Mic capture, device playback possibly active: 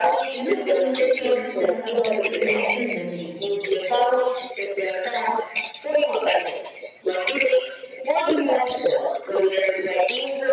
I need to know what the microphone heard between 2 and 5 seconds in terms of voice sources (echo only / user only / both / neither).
both